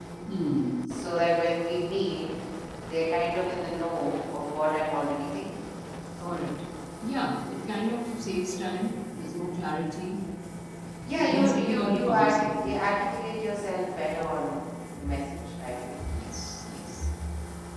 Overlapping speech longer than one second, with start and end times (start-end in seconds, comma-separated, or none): 11.1-12.8